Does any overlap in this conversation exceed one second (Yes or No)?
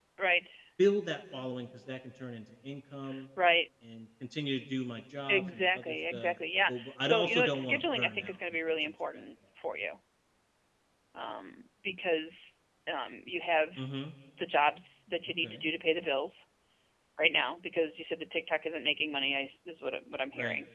Yes